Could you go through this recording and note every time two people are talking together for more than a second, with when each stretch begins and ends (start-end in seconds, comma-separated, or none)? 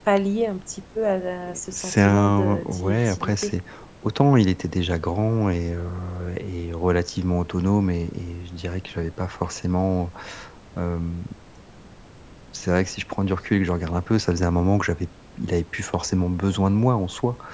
1.7-3.5